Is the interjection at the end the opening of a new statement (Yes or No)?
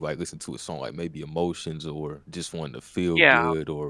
No